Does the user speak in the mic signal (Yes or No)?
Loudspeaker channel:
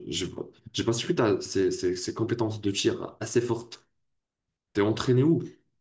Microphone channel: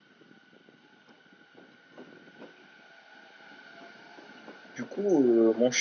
Yes